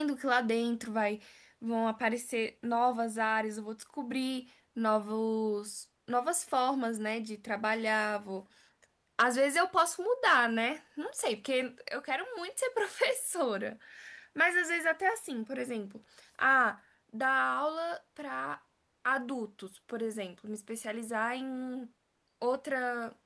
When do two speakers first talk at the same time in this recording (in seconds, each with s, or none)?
none